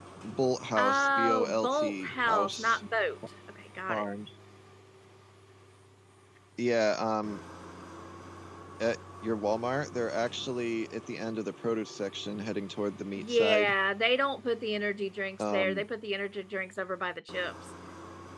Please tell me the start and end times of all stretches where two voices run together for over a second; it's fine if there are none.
0.8-2.8

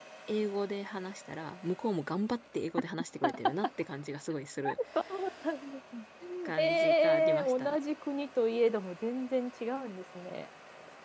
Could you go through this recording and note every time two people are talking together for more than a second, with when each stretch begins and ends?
6.5-7.8

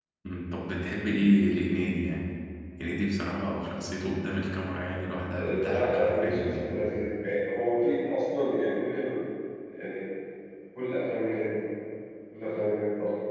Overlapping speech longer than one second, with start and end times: 5.4-6.8

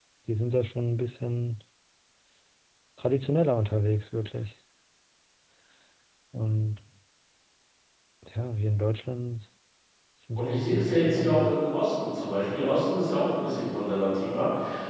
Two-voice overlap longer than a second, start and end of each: 10.4-11.6

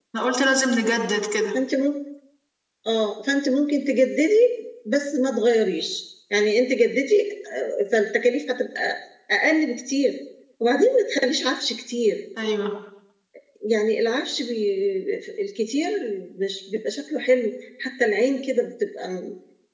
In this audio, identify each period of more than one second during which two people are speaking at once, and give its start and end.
none

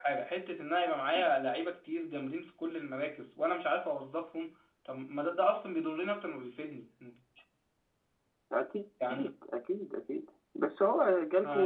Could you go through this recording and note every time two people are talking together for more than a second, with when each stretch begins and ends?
none

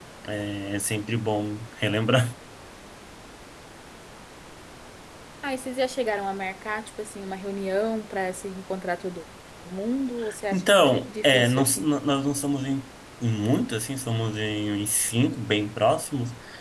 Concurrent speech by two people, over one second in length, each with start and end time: 10.5-11.9

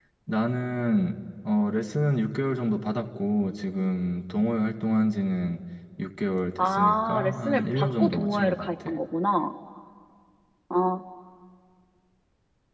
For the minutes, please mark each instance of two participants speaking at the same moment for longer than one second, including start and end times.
6.6-9.0

